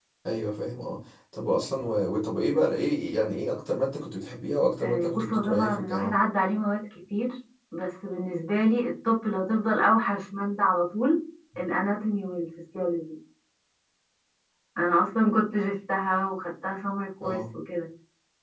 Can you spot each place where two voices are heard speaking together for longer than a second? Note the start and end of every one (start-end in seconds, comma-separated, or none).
4.8-6.1